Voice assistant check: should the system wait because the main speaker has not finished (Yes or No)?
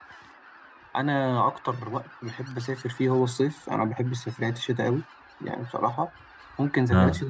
Yes